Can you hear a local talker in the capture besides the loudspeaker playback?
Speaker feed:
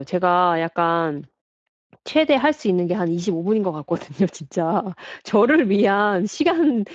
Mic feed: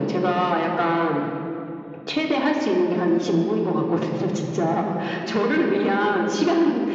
No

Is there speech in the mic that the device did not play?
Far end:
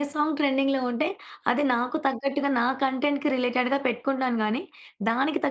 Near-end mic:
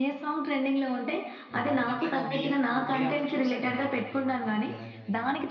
Yes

